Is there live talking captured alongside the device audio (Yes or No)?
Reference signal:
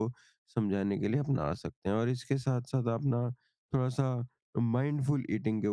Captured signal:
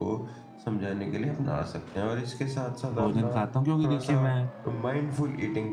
Yes